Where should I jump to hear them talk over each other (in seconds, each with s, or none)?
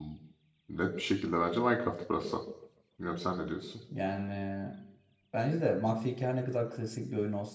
none